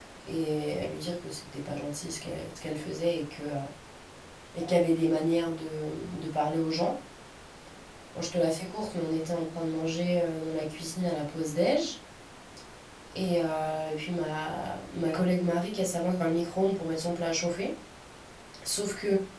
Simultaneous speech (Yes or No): No